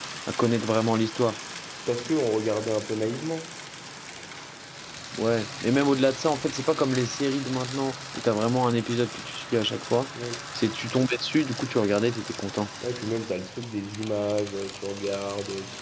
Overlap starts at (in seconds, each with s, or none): none